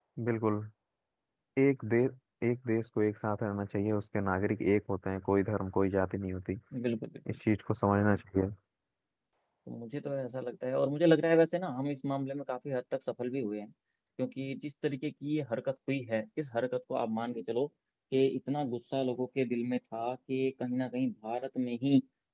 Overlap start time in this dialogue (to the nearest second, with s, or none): none